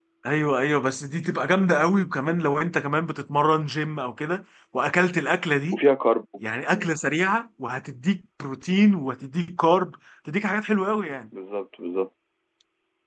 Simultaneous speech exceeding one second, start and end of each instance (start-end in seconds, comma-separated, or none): none